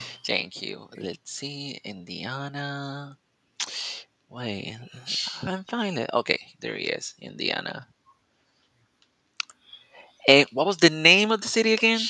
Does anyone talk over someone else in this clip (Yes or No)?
No